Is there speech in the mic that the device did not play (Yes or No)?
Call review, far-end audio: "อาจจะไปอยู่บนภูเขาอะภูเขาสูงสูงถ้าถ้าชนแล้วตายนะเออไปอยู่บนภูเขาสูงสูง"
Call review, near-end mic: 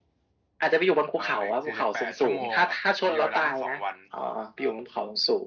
Yes